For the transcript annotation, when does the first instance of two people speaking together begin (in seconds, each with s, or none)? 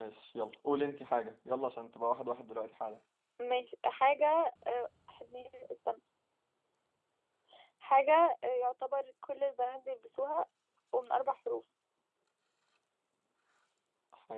none